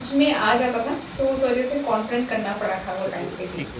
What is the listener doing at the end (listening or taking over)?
taking over